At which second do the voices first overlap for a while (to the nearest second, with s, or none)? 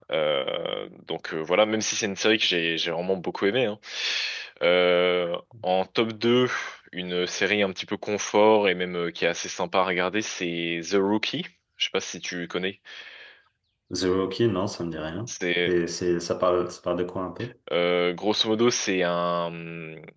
none